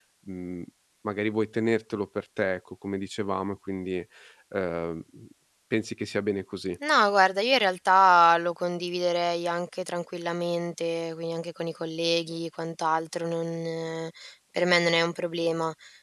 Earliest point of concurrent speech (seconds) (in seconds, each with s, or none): none